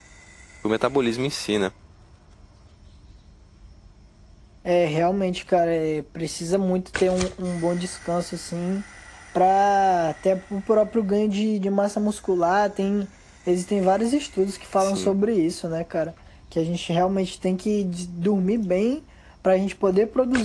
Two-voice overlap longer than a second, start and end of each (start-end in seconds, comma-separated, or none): none